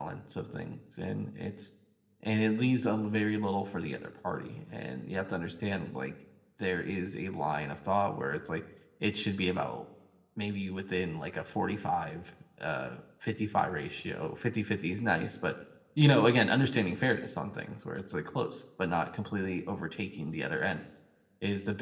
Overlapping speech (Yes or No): No